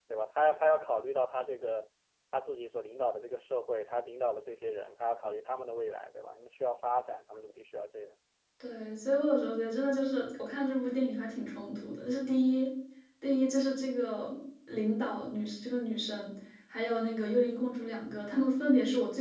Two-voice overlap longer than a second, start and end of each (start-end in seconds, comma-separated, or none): none